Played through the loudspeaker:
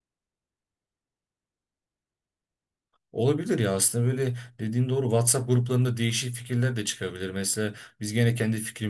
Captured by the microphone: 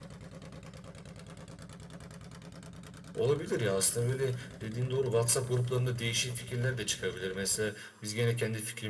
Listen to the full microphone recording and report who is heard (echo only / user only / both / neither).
echo only